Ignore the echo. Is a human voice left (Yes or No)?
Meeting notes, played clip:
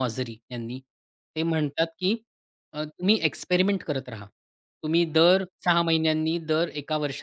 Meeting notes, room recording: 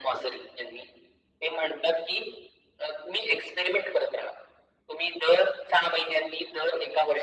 No